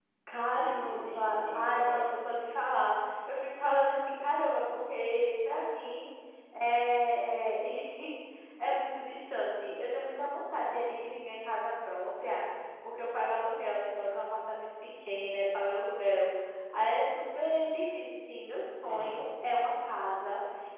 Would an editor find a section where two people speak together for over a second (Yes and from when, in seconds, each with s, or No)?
Yes, from 0.5 s